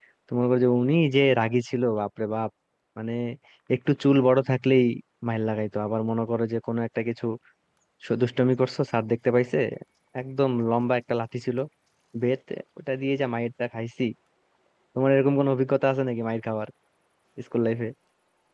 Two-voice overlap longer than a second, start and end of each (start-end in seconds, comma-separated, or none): none